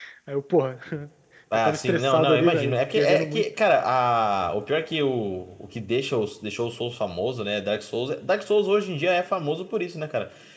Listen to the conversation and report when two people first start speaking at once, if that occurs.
1.5 s

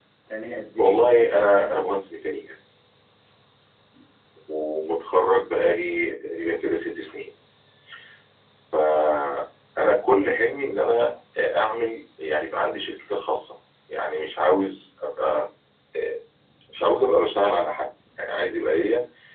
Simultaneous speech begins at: 0.8 s

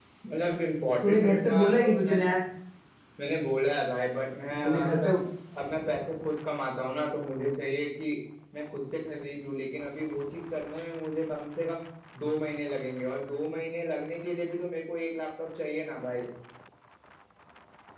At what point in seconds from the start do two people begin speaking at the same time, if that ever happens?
1.0 s

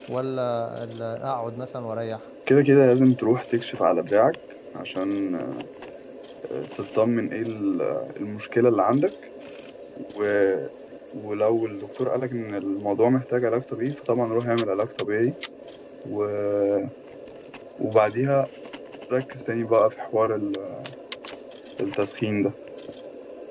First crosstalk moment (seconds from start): none

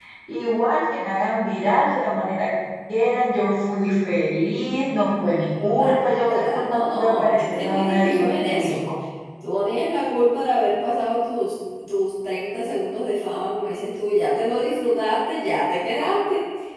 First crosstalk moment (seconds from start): 5.6 s

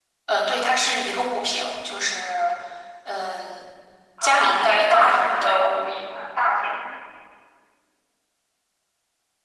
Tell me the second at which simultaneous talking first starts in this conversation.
4.2 s

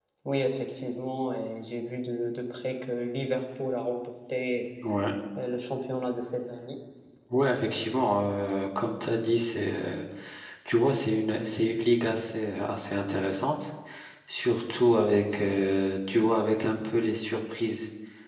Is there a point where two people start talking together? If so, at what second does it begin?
none

